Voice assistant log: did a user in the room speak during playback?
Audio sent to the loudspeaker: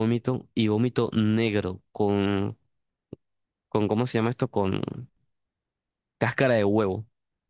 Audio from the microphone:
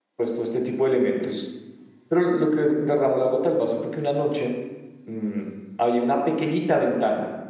Yes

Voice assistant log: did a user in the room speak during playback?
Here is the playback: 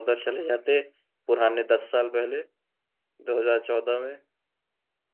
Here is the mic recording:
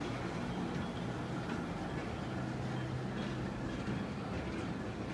No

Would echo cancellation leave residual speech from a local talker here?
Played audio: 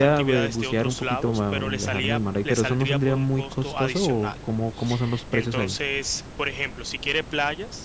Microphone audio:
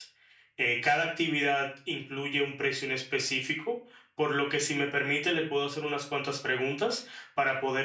Yes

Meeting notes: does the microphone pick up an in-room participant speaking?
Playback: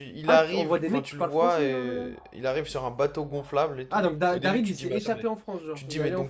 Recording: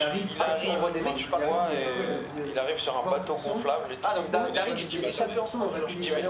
Yes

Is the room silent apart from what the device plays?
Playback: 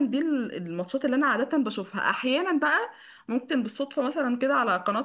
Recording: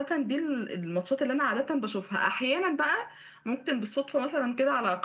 Yes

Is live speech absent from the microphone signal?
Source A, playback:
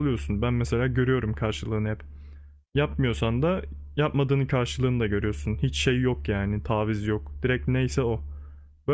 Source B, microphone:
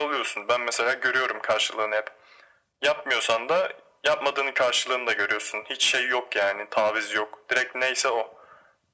Yes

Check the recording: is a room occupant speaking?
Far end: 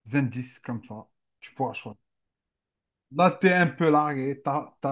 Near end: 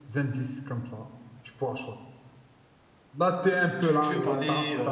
Yes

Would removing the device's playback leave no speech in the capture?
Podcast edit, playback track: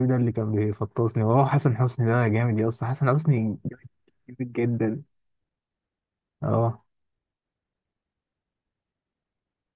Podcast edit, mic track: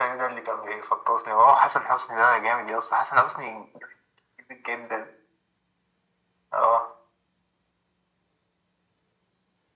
Yes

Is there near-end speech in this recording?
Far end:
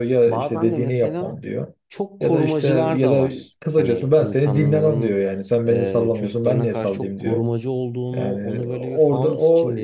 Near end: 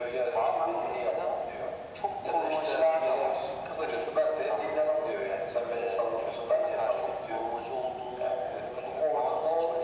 No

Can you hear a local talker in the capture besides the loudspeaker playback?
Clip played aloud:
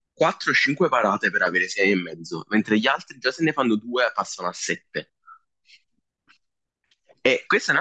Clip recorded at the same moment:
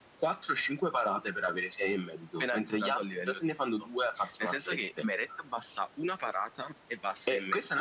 Yes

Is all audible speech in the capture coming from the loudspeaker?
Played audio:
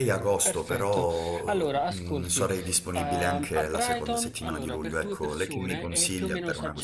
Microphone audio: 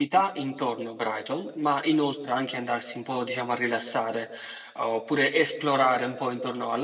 No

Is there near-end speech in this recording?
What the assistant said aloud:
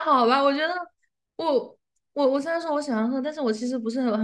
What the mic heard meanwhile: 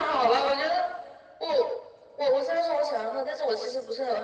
No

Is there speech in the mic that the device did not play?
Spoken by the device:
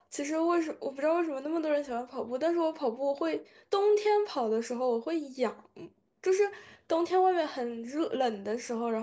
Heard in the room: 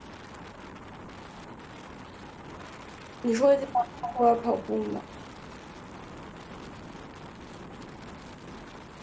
Yes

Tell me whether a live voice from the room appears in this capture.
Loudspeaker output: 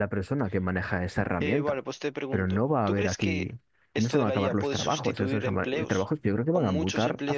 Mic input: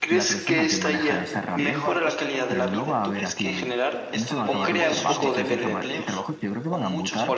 Yes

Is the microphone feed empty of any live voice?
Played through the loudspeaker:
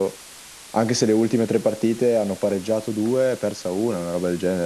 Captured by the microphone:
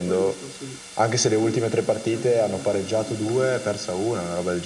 No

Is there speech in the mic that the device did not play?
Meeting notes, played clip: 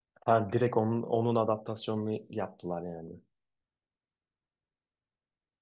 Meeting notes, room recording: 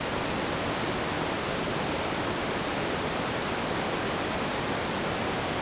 No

